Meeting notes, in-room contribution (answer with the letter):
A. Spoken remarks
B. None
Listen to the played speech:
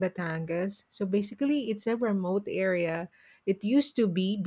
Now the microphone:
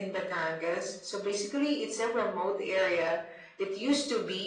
B